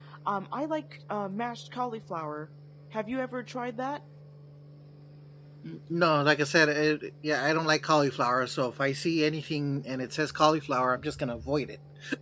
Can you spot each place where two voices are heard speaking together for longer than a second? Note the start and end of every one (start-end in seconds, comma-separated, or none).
none